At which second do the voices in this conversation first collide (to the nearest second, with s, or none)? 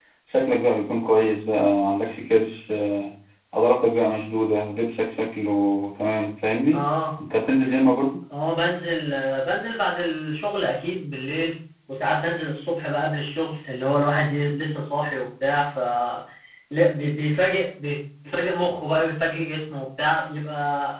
none